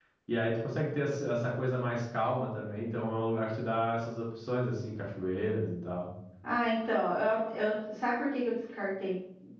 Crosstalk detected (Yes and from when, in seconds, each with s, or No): No